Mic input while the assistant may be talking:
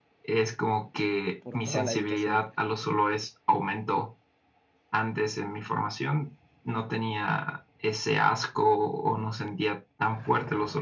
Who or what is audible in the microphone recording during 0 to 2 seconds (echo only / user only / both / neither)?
both